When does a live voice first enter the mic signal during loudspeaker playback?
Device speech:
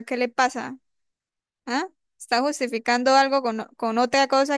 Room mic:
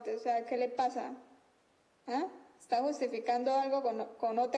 none

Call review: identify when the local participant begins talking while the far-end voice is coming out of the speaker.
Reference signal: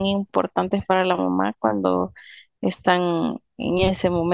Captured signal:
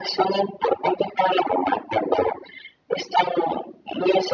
none

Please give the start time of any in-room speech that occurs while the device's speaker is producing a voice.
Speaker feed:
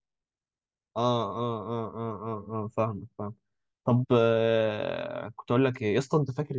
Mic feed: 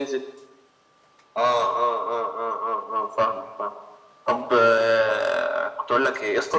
none

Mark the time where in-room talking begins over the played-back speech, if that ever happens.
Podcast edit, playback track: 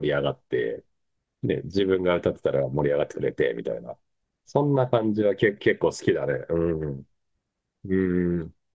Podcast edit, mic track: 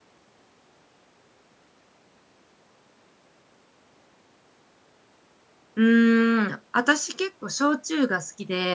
5.7 s

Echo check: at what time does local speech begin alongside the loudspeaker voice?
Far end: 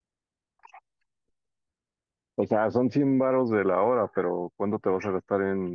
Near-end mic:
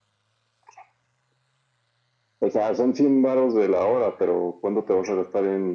none

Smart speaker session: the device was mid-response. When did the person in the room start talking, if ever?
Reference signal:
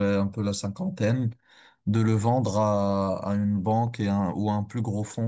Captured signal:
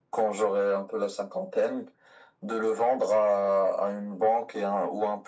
none

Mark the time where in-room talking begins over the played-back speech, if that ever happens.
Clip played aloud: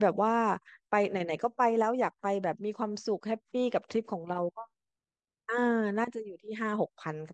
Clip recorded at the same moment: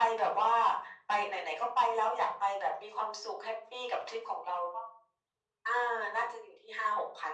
none

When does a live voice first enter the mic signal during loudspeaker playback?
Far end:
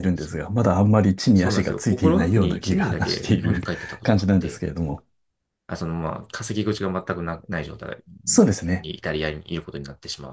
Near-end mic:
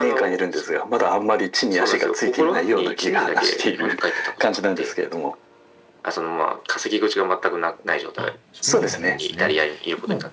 8.2 s

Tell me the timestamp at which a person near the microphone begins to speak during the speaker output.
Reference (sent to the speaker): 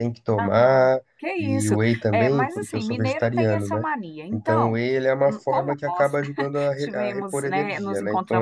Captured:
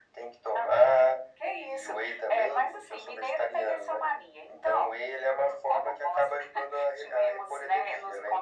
none

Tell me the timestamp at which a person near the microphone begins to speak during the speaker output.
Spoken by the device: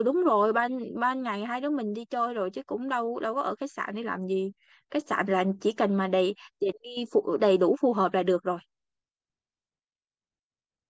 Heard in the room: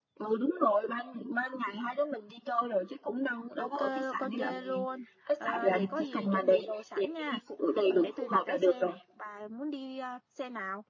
3.5 s

